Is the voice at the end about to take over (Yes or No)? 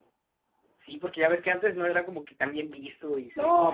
Yes